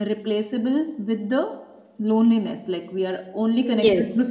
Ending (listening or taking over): listening